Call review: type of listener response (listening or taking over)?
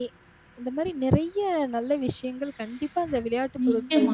taking over